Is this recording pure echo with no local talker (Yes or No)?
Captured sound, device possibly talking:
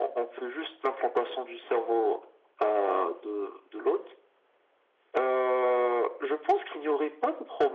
Yes